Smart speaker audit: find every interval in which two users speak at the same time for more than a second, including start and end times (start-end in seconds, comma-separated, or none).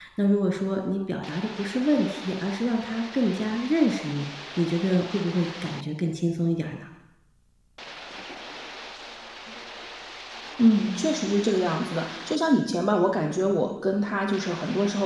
none